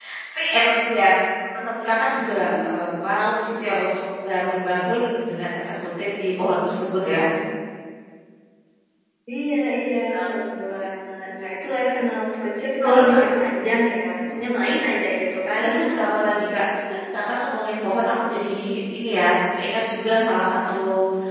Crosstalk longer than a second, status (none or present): none